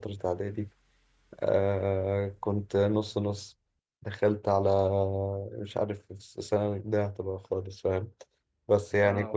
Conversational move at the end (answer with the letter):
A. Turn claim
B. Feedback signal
B